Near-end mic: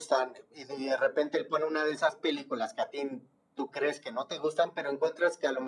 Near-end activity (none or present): none